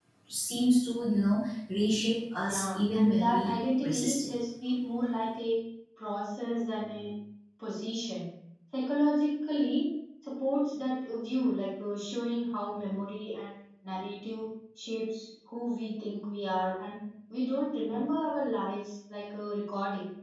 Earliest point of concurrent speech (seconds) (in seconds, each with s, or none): 2.4 s